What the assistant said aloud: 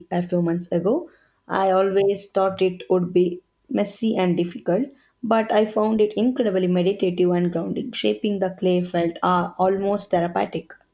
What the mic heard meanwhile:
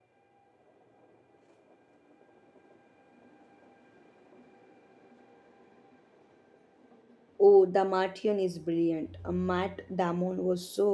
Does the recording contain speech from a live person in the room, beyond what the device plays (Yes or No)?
Yes